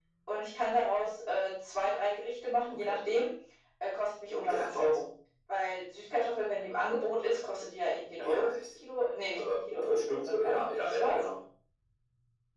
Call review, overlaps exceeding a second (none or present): present